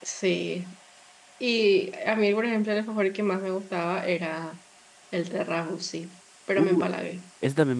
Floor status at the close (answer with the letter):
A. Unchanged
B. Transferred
B